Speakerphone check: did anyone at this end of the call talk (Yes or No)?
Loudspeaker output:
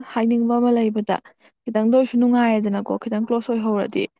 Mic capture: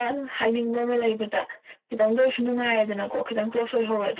No